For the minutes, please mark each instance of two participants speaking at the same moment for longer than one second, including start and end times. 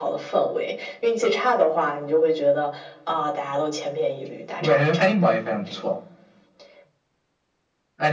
none

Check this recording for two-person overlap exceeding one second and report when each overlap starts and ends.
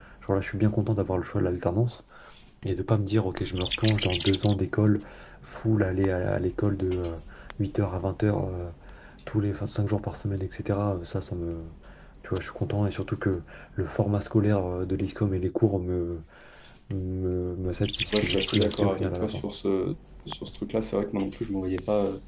18.2-19.4

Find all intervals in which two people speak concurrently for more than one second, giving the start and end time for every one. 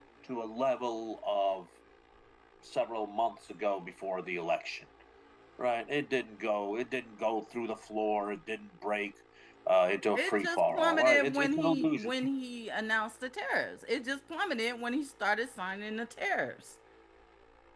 10.2-12.1

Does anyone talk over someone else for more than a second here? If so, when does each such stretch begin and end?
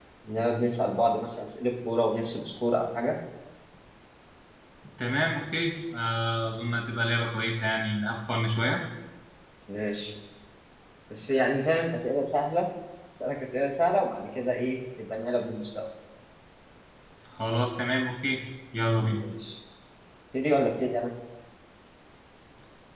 none

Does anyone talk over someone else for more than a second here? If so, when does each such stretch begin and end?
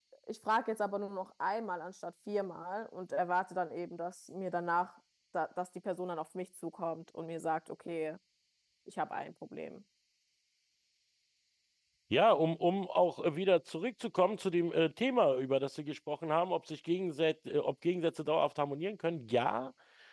none

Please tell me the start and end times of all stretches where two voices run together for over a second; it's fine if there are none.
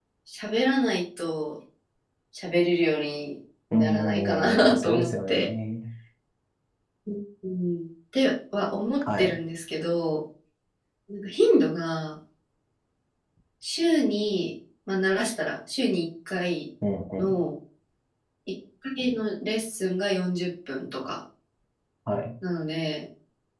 3.7-5.4

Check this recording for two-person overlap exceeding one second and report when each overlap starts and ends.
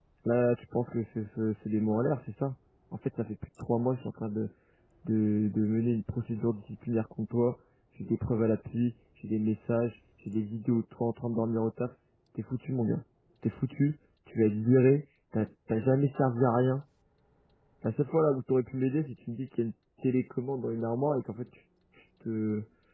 none

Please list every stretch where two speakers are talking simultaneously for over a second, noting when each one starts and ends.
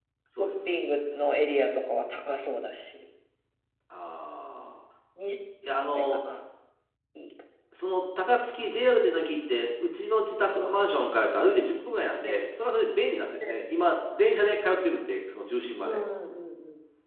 none

